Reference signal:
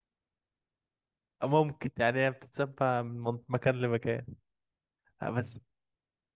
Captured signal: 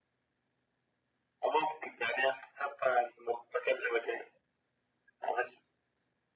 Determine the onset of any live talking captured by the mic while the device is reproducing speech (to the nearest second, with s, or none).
none